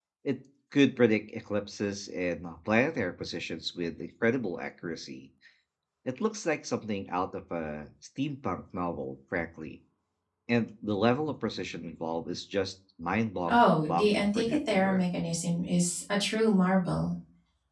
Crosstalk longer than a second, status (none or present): present